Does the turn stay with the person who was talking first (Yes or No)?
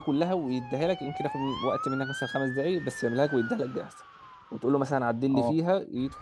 Yes